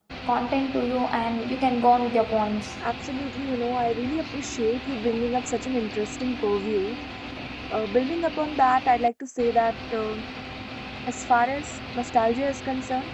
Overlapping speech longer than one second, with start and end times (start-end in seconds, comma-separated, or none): none